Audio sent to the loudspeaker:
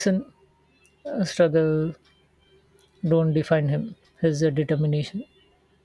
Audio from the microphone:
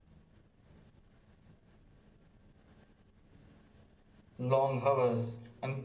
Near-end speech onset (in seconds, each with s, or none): 4.4 s